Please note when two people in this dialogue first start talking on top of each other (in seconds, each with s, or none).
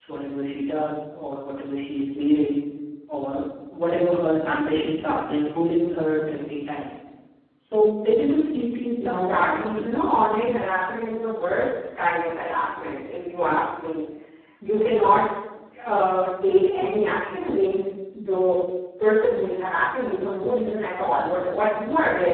9.0 s